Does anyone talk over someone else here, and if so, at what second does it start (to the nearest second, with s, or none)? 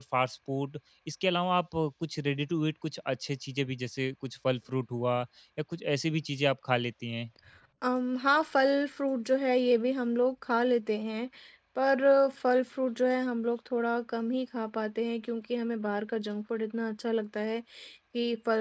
none